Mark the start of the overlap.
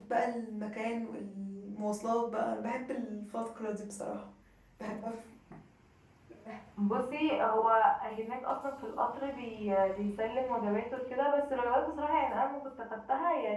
none

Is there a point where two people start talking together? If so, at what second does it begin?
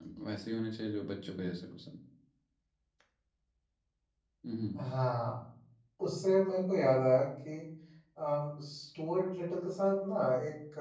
none

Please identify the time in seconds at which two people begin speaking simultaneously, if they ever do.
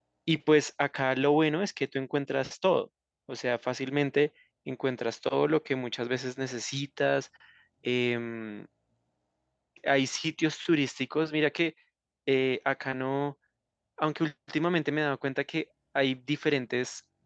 none

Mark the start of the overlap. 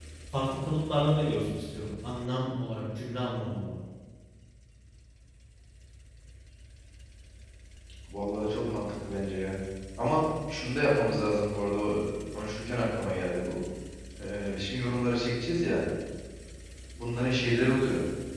none

